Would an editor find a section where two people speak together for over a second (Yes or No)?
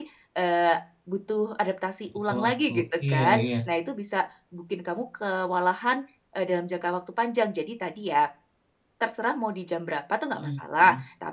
Yes